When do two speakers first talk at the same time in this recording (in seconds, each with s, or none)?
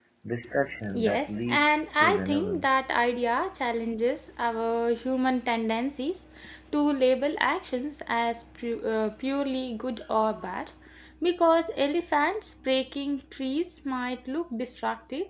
0.9 s